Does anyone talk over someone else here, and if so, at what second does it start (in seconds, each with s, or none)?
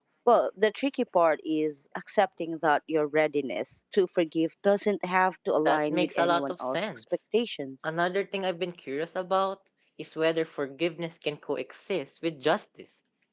5.6 s